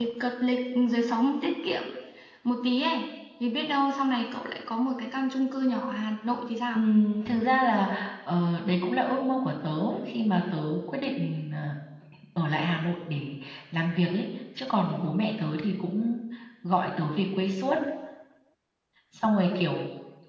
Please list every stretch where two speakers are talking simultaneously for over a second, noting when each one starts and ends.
none

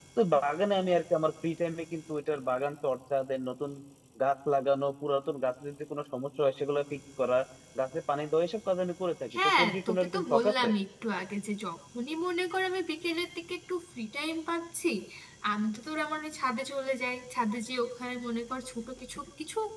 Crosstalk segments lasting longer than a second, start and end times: 9.4-10.7

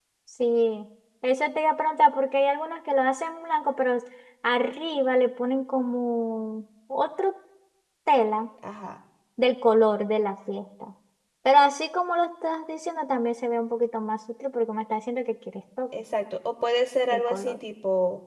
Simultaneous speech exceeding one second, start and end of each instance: none

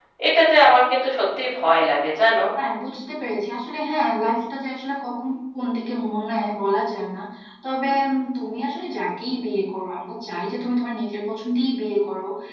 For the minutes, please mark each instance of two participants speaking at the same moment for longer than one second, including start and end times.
none

